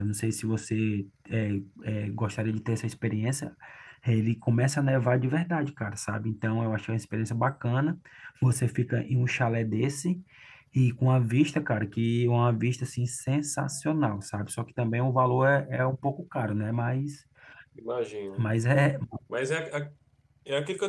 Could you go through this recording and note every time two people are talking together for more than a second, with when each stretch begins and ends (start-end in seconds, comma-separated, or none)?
none